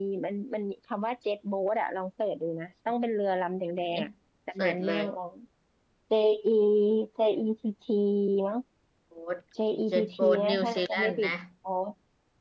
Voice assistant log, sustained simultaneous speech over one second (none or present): present